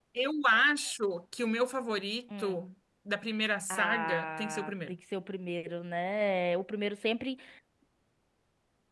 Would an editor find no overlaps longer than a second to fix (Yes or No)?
No